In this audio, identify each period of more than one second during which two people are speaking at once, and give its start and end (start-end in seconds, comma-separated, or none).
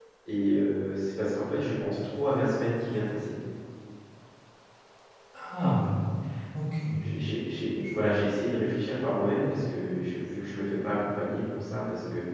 none